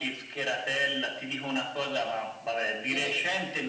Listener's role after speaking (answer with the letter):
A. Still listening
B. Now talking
A